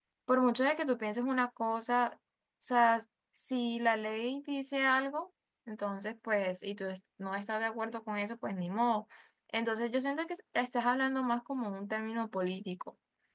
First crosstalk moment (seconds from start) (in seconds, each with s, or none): none